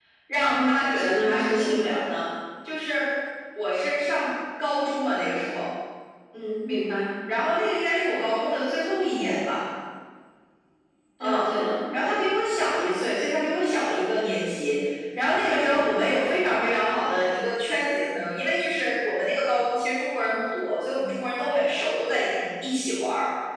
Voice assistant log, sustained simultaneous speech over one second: present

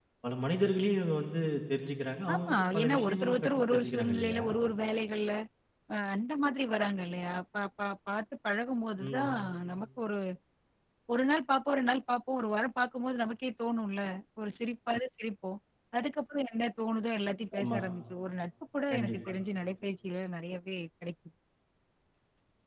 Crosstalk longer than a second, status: present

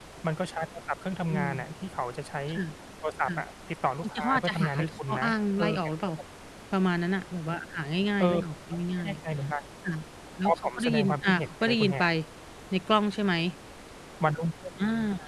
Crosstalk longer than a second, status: present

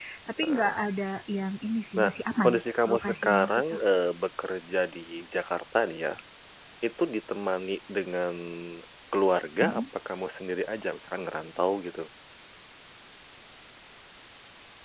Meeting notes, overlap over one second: present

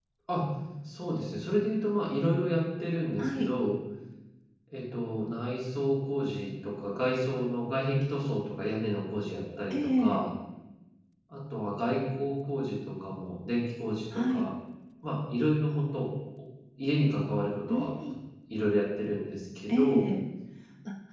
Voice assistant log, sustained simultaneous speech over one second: none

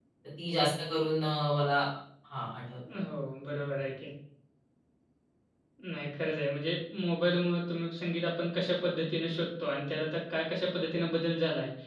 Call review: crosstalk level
none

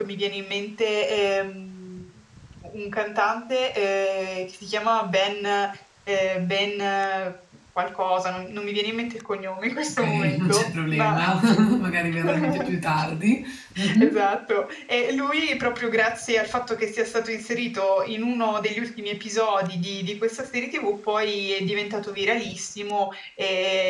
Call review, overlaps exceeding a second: present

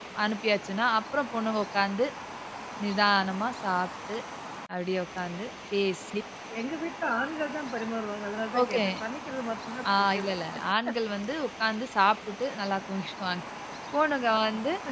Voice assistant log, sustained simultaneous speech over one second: none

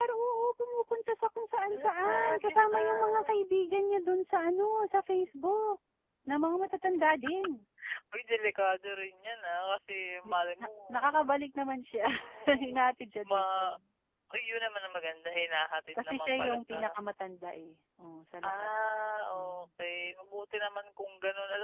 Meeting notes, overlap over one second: present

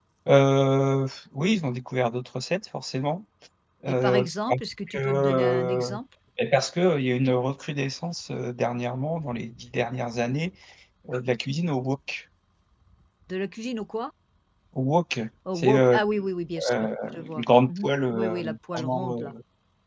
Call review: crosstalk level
present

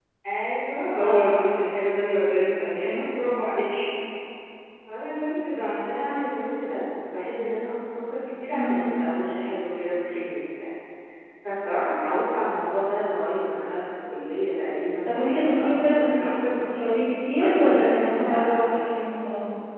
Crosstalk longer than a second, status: present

